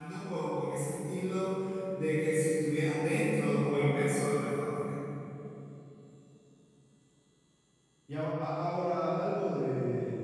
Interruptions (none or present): none